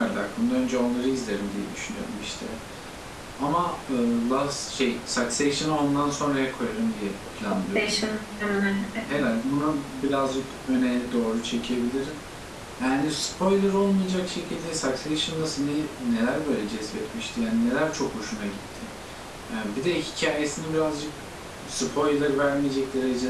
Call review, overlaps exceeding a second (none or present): none